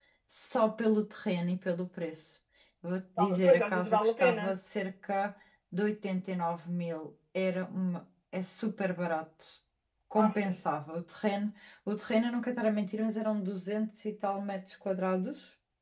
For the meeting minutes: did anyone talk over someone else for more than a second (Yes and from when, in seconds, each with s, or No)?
Yes, from 3.2 s